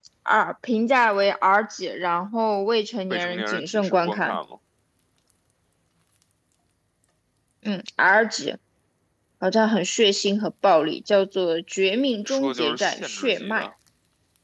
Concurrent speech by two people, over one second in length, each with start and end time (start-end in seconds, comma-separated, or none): 3.1-4.4, 12.3-13.7